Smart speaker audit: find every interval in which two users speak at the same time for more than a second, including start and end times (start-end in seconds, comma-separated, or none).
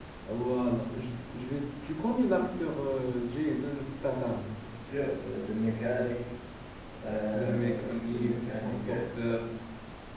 7.3-8.8